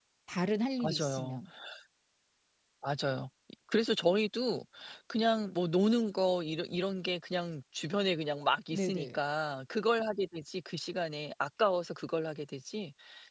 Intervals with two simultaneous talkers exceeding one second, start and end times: none

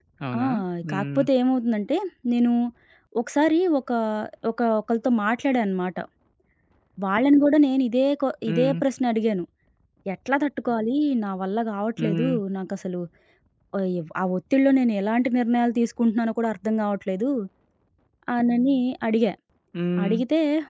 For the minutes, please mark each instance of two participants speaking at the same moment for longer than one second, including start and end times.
none

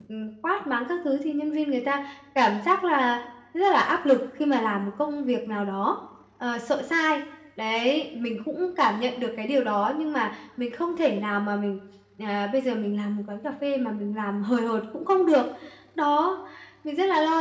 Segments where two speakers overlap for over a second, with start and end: none

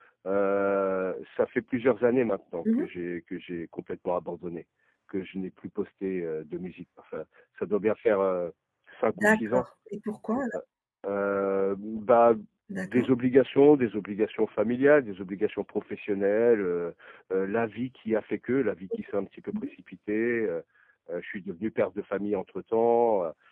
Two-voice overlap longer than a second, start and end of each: none

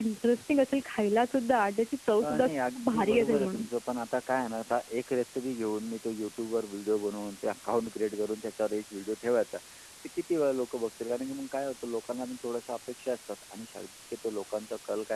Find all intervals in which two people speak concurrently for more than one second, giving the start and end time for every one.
2.2-3.7

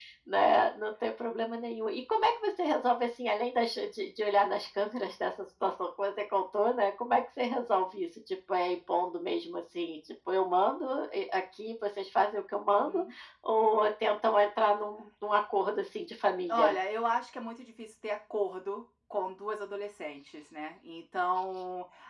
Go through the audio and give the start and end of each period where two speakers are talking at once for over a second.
none

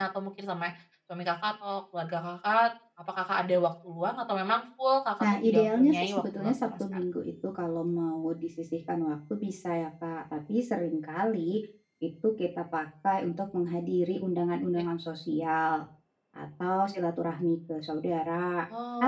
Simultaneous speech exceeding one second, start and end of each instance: 5.2-6.8

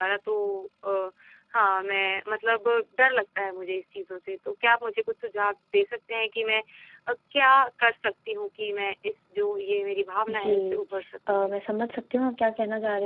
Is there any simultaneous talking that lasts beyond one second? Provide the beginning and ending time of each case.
none

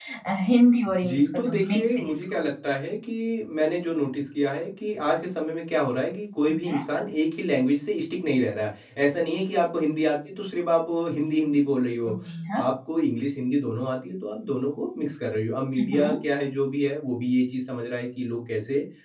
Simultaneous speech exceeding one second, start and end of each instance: 1.1-2.4

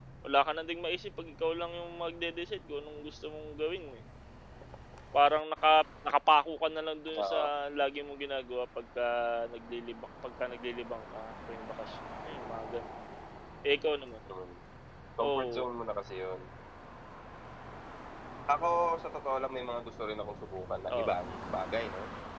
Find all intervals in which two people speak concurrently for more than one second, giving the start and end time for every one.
none

